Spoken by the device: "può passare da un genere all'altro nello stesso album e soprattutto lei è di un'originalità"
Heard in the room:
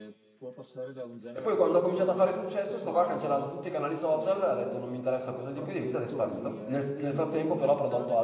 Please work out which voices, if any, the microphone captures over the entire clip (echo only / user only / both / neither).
both